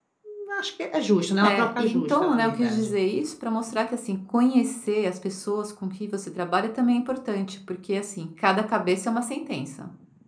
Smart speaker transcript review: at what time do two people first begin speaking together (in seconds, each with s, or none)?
1.4 s